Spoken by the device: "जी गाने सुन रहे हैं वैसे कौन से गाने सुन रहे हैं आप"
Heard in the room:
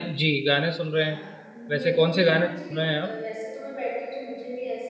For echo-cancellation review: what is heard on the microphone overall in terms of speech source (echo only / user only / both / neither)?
both